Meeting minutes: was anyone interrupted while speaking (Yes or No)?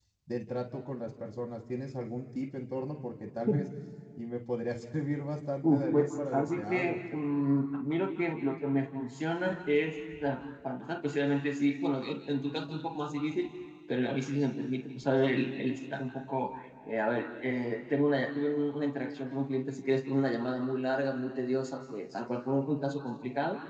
Yes